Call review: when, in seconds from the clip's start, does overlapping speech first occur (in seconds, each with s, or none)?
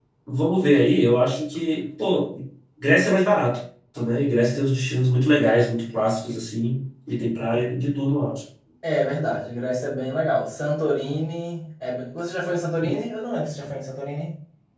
none